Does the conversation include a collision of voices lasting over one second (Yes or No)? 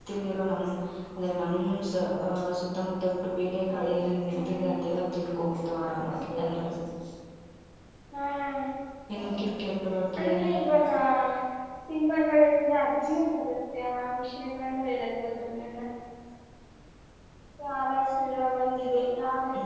No